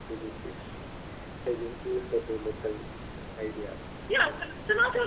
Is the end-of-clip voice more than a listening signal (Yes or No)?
Yes